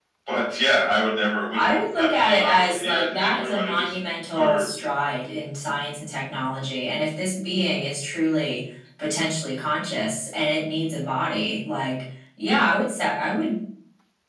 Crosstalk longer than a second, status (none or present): present